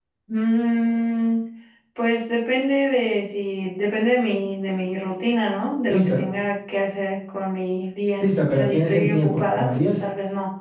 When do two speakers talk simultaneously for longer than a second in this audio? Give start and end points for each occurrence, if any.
8.2-9.8

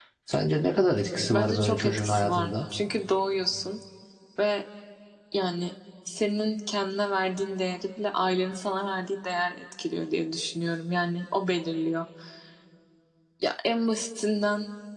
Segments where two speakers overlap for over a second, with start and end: 1.3-2.6

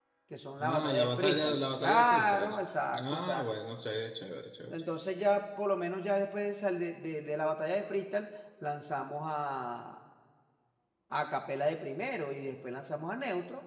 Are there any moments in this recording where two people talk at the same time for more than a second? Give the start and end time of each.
0.6-2.6

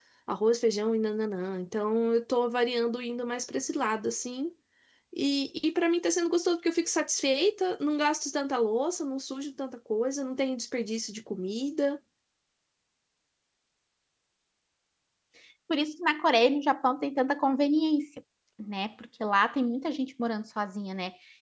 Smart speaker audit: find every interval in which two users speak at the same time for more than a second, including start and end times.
none

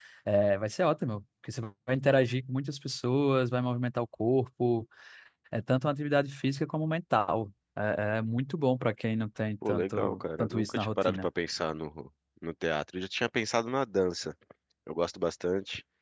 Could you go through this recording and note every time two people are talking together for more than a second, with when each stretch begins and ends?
9.7-11.3

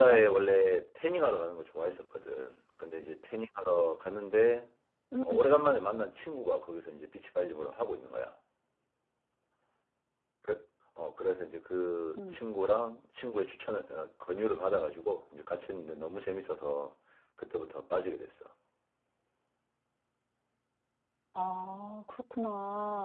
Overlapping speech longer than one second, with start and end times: none

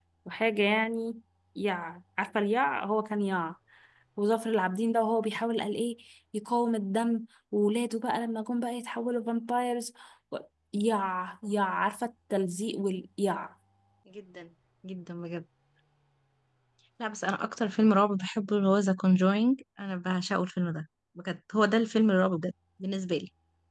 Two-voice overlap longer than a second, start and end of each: none

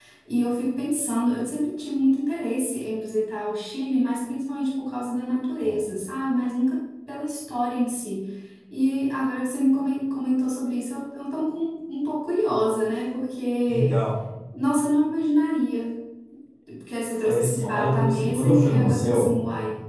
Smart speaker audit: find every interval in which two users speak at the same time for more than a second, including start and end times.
17.2-19.3

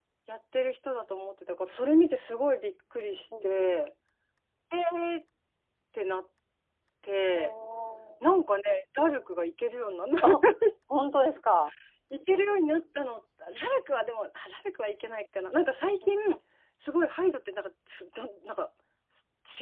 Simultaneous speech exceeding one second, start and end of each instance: none

